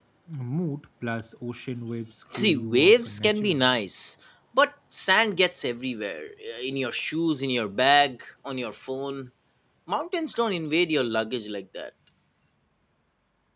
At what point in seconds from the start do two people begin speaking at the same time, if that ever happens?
2 s

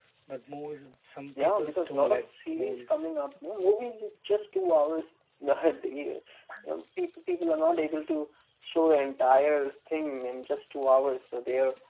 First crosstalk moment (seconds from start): 1 s

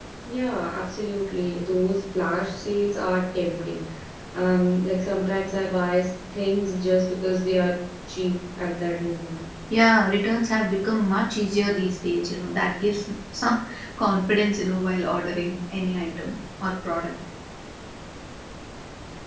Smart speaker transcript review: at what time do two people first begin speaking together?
none

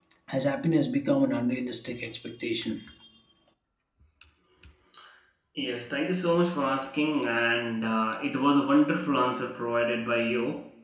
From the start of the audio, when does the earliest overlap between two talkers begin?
none

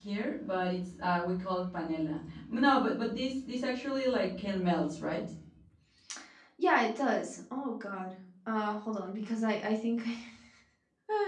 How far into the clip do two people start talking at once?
none

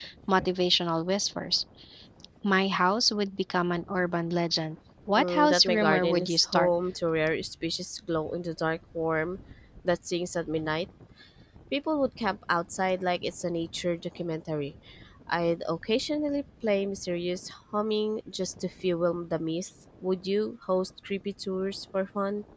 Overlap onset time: 5 s

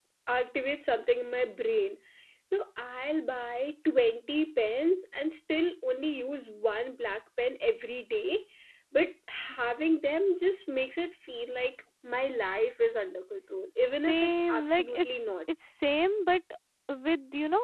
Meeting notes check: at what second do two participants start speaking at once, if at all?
14 s

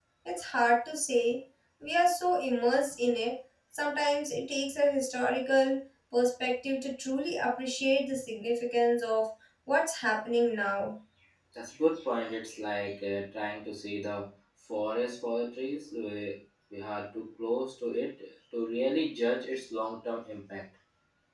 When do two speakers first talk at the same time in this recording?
none

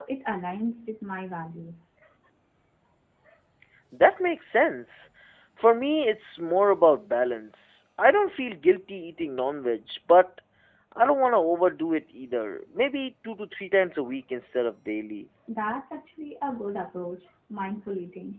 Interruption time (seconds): none

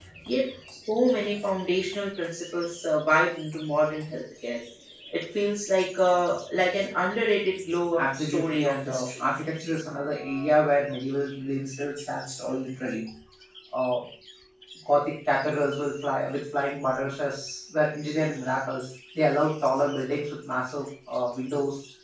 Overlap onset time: 8 s

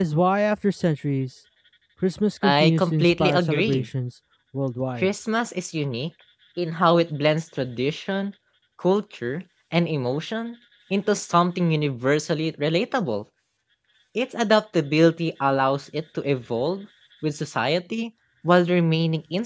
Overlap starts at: 2 s

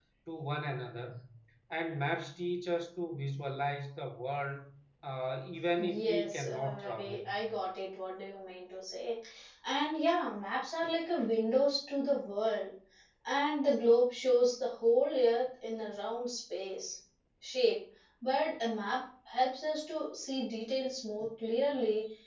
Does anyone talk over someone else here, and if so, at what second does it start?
6 s

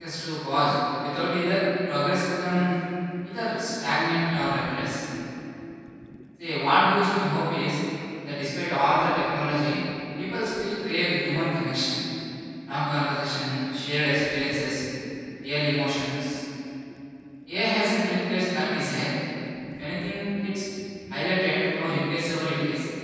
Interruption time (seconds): none

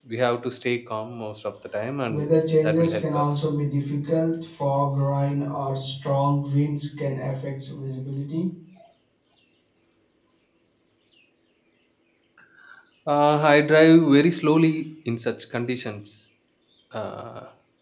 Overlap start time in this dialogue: 2 s

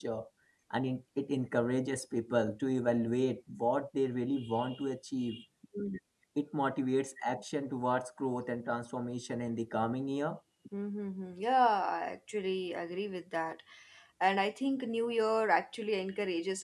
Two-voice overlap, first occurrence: none

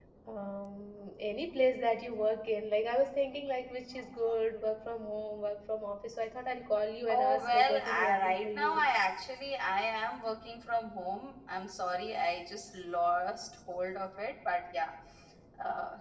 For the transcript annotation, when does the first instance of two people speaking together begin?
7 s

